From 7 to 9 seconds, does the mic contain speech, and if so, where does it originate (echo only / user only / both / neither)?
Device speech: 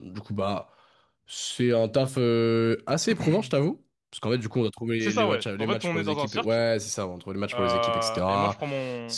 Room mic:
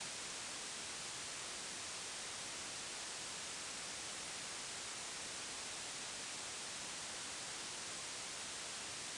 neither